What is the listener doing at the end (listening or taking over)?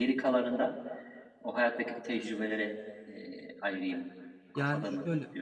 taking over